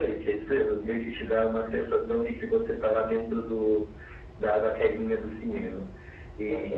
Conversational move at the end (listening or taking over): taking over